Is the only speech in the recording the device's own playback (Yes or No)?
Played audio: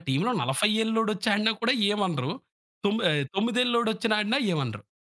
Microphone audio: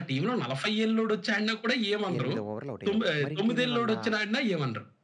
No